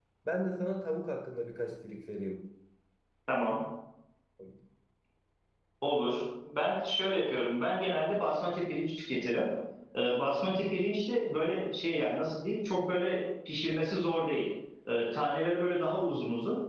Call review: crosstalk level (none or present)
none